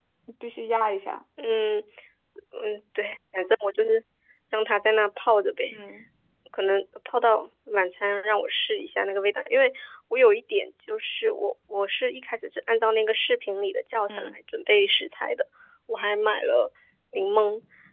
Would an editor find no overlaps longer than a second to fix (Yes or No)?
Yes